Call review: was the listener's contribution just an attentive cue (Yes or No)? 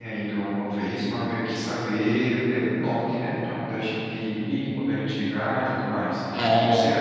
No